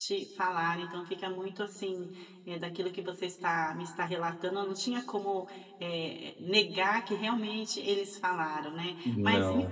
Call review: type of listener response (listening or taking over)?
listening